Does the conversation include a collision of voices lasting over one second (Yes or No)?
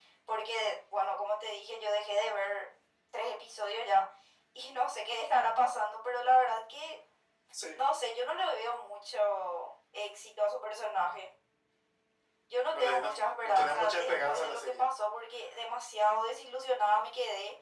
Yes